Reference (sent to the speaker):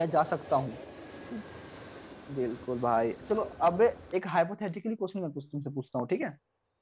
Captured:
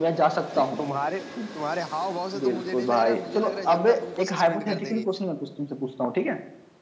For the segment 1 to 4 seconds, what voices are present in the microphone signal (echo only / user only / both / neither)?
both